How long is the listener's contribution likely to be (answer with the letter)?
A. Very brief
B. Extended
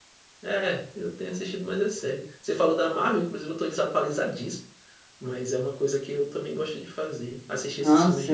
B